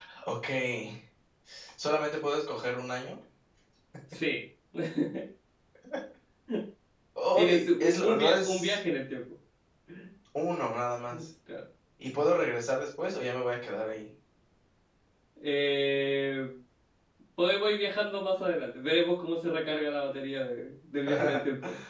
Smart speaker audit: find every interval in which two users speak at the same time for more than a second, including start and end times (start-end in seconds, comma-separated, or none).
7.3-8.8